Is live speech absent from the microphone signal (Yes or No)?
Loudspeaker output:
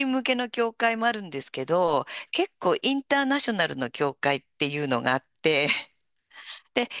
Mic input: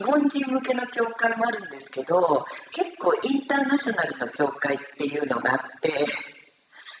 Yes